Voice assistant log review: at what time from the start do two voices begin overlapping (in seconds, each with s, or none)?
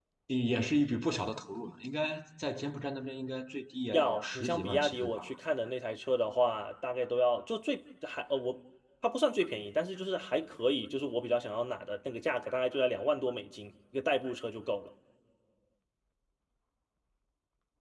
3.9 s